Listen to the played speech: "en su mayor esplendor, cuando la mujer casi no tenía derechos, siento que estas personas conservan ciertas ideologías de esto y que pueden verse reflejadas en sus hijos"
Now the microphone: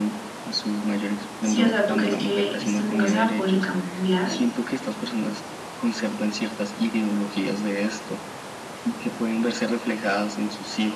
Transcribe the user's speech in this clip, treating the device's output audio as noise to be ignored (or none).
Sí, o sea, ¿tú crees que esto nunca se va a poder cambiar?